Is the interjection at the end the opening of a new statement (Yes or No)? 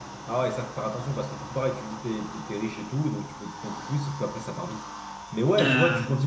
No